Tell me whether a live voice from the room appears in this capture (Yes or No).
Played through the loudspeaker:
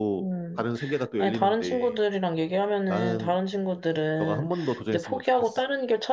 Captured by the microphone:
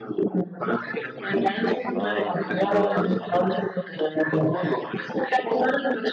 Yes